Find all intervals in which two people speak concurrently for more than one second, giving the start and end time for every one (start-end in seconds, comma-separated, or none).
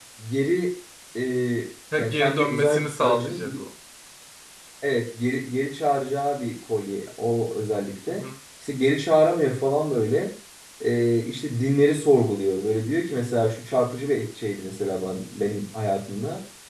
1.9-3.4